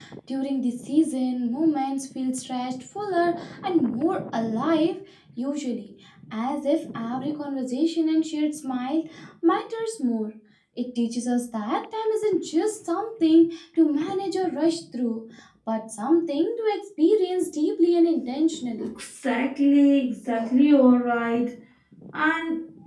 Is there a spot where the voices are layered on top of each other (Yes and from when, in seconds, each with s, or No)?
No